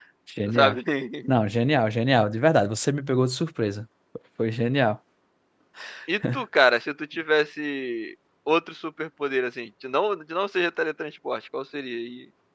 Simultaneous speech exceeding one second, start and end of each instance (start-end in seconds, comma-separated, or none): none